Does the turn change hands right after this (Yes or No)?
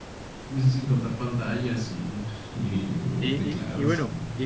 Yes